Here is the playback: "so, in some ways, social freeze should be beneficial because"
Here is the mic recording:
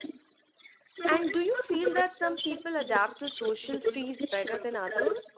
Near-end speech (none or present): present